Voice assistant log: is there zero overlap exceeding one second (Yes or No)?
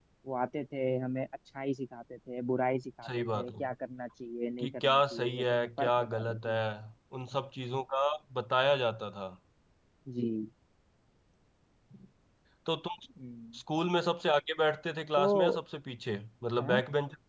No